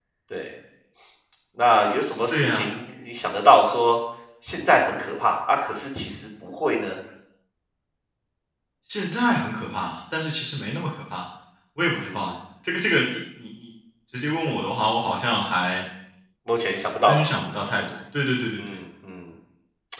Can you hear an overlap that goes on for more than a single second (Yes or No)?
No